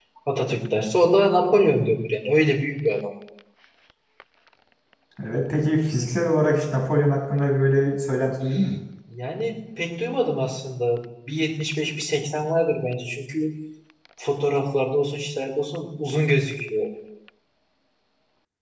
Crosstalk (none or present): none